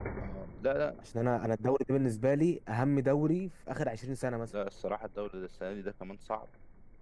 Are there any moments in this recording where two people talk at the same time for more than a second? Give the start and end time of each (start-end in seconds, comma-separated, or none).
none